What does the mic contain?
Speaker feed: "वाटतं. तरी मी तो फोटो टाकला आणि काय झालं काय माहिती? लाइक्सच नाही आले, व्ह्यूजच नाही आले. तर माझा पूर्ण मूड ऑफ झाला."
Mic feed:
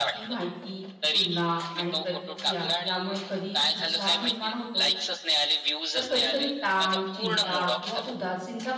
both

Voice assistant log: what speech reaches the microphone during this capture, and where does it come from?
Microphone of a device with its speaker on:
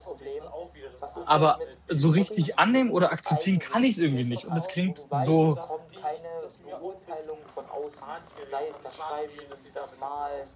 both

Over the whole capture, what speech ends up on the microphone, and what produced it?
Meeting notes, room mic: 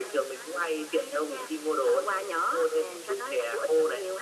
echo only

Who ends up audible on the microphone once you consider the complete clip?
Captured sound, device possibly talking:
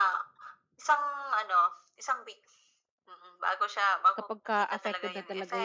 both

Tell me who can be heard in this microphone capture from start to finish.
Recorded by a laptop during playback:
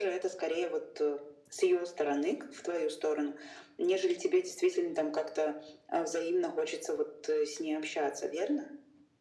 echo only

